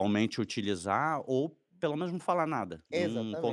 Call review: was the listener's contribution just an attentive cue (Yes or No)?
No